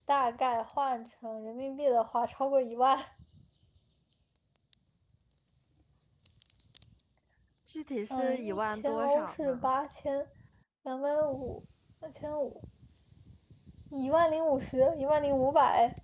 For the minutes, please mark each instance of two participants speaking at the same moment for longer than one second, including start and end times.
8.1-9.6

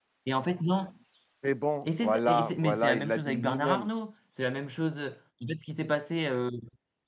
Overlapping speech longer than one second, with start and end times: 1.9-3.9

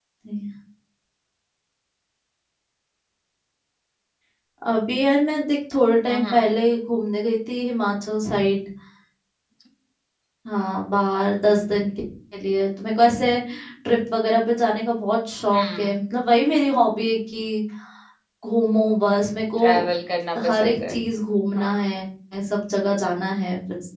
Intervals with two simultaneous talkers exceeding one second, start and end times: none

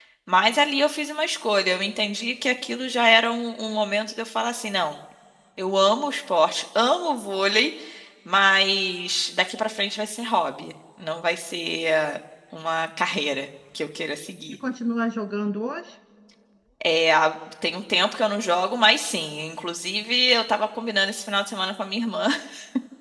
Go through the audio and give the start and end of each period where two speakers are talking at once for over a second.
none

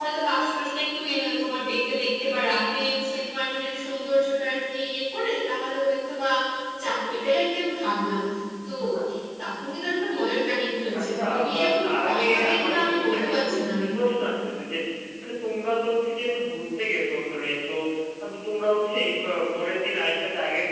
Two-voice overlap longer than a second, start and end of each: 11.0-13.6

